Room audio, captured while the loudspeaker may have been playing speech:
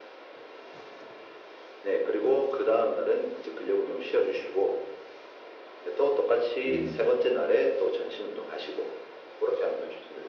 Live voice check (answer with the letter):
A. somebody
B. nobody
A